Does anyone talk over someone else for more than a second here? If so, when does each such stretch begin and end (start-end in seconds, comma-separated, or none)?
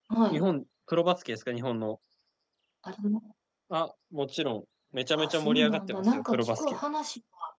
5.2-6.8